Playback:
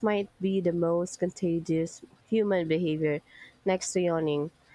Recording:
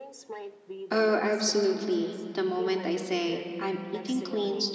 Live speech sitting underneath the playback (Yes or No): No